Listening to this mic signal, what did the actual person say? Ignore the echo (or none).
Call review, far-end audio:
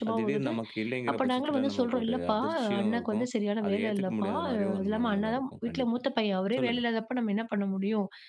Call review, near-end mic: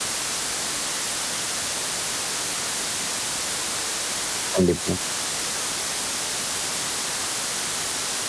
கண்டிப்பா.